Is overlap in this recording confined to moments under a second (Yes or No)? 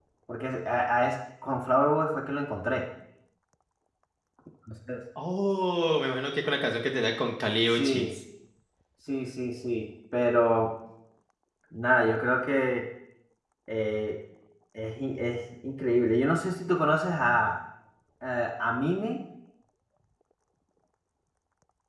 Yes